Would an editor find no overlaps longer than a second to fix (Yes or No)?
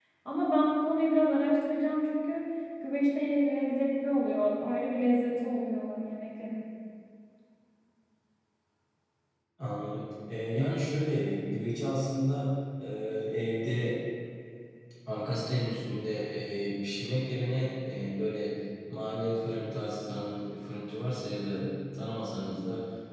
Yes